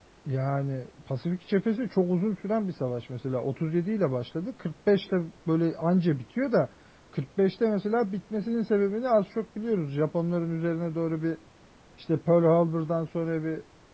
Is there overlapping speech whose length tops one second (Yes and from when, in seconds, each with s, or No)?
No